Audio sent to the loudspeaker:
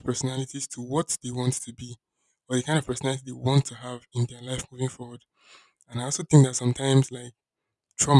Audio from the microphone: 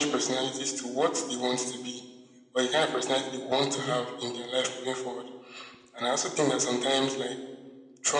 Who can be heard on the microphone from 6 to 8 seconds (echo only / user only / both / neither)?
echo only